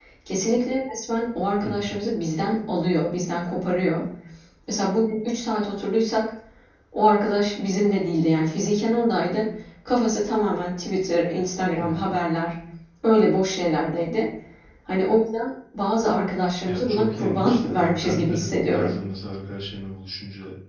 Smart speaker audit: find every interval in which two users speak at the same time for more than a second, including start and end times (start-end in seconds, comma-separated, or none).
16.6-18.9